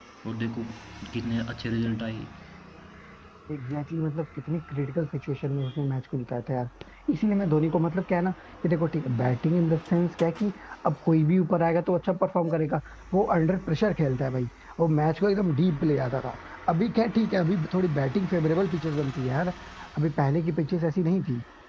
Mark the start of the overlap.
none

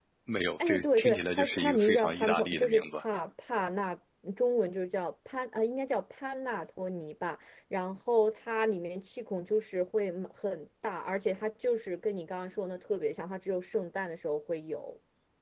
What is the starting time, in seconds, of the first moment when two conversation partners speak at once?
0.6 s

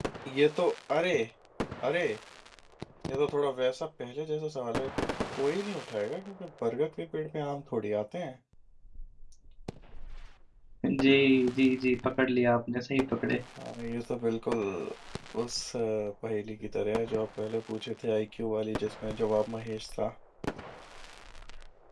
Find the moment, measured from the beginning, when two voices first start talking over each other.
none

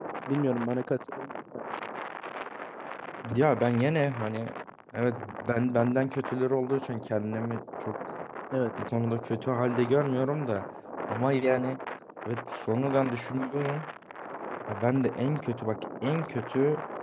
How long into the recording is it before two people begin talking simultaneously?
none

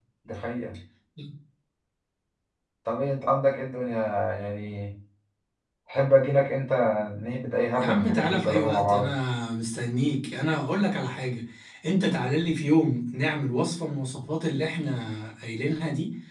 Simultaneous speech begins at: 7.8 s

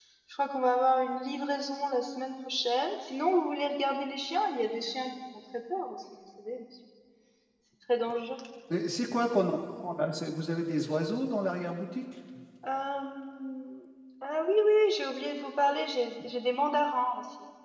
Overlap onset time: none

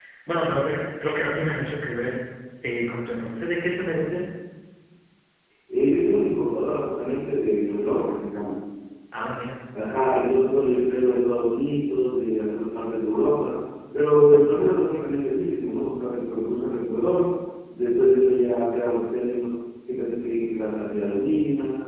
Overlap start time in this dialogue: none

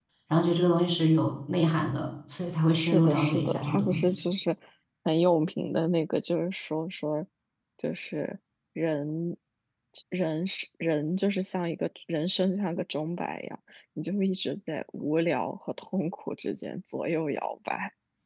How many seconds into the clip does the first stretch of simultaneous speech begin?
2.8 s

